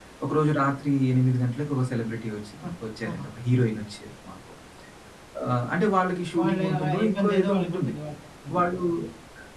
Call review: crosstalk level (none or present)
present